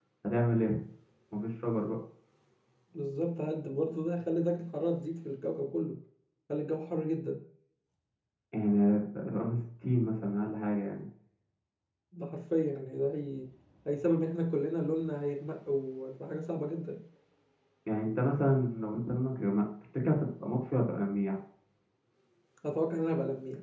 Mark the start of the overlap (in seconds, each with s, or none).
none